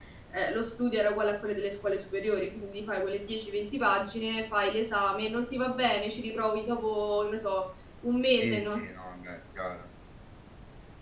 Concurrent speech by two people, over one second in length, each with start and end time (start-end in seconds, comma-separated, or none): none